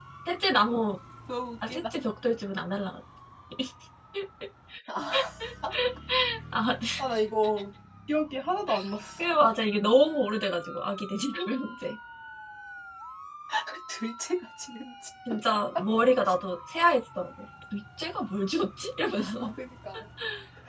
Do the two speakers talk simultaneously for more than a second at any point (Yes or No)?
No